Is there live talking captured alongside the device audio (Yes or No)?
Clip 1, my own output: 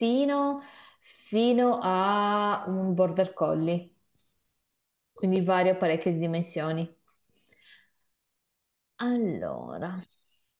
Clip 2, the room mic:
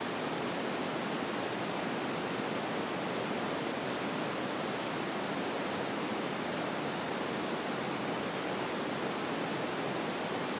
No